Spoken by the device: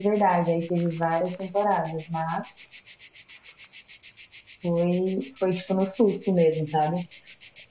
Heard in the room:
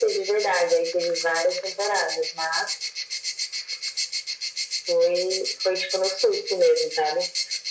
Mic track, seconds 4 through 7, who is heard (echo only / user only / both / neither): echo only